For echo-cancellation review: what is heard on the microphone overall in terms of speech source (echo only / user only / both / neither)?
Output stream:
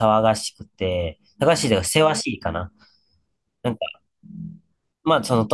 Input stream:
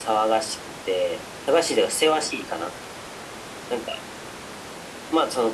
echo only